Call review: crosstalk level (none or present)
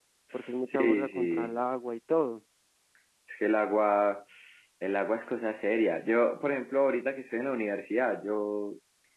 present